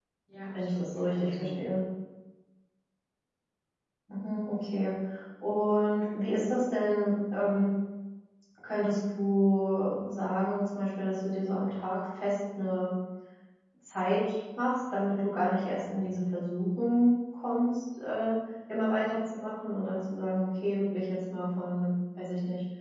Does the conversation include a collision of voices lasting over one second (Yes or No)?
Yes